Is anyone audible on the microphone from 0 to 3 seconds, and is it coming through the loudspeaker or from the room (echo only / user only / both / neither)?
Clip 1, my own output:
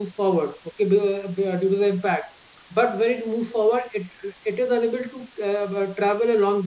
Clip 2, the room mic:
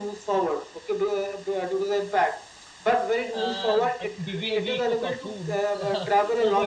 echo only